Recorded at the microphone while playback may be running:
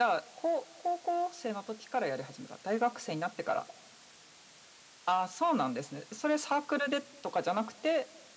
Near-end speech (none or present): none